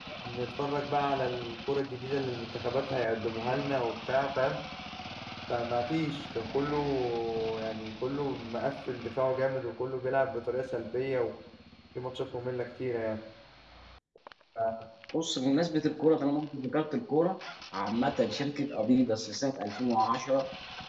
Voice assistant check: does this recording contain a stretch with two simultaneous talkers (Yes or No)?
No